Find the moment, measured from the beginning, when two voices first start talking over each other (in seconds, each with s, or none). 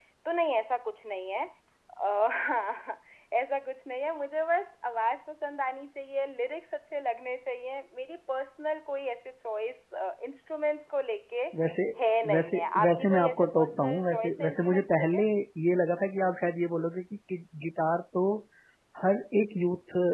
12.3 s